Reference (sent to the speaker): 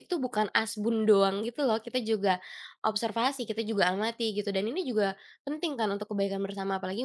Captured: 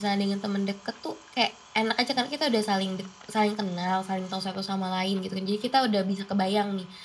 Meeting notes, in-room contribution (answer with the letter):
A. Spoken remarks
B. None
A